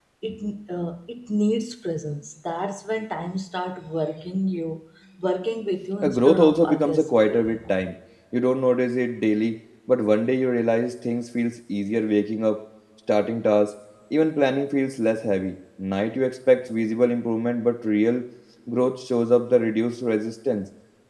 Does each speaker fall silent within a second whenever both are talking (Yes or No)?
No